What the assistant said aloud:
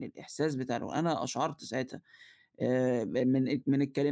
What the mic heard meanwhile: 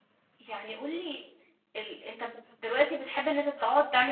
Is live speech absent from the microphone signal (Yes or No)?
No